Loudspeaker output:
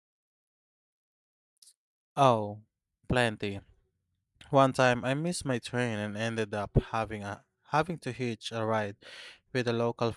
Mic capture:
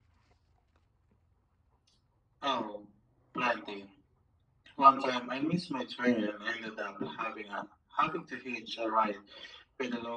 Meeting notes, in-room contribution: none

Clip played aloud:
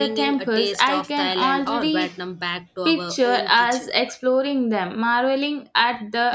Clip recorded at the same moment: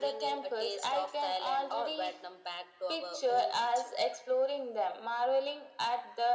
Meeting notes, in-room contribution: none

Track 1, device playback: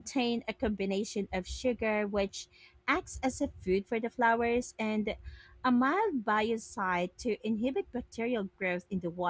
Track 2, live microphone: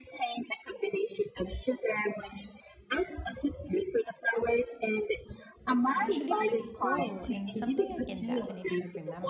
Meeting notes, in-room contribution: present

